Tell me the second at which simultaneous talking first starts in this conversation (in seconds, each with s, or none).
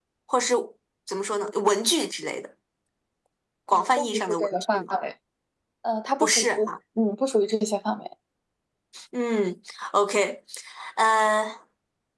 3.7 s